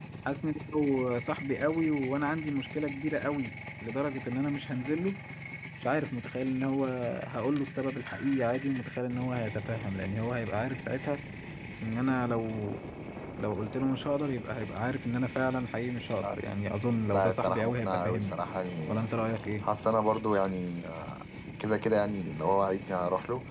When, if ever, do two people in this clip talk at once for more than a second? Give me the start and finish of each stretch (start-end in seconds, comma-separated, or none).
17.1-18.4